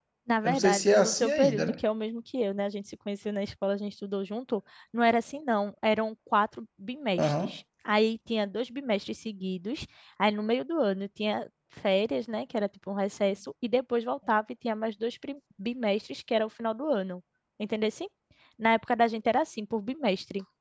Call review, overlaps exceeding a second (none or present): present